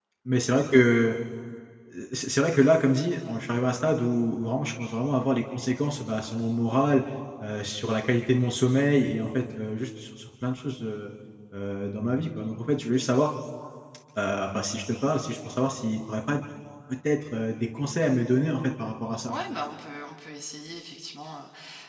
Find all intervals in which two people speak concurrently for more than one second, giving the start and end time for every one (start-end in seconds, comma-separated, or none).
none